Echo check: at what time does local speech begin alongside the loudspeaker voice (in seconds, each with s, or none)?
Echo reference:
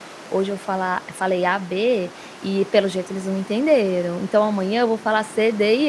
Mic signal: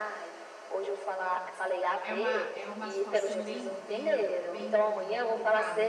2.0 s